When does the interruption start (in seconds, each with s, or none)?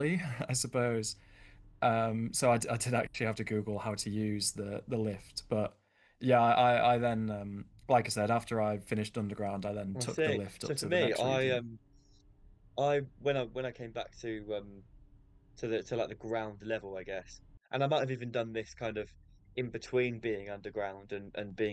9.9 s